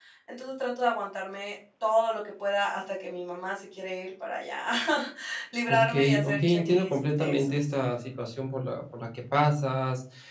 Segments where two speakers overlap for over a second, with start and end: 5.7-7.5

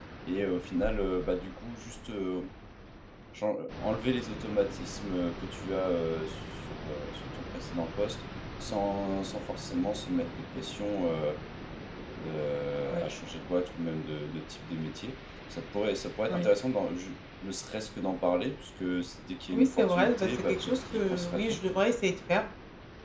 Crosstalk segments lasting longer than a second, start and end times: 19.5-21.8

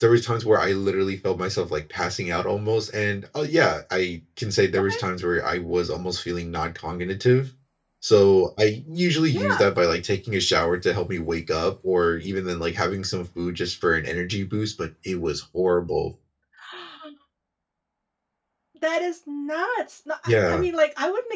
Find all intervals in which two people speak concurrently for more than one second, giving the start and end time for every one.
none

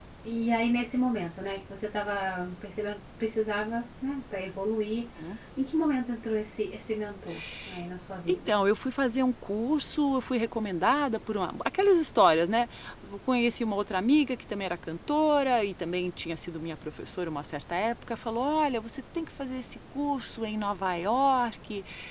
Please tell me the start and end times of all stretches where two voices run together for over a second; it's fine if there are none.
none

